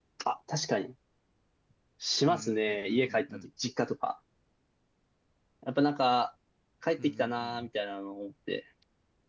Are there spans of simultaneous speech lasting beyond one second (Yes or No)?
Yes